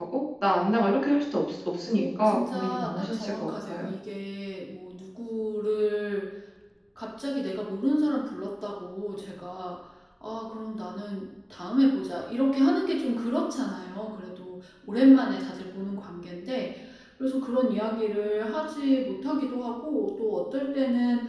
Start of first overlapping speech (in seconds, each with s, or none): 1.9 s